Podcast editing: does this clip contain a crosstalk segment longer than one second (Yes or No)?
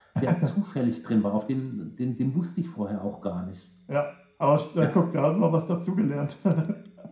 No